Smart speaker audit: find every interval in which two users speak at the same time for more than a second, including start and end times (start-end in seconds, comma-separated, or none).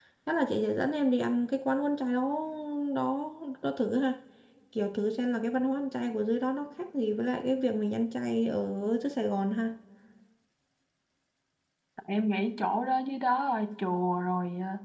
none